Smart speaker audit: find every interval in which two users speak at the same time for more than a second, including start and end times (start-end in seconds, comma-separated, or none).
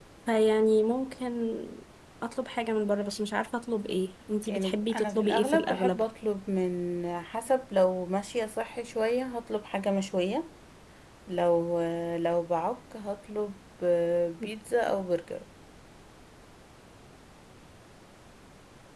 4.5-6.0